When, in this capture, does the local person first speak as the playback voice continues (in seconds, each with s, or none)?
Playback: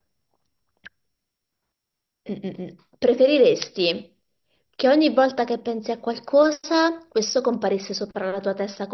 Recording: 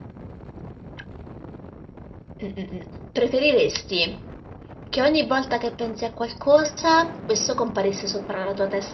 none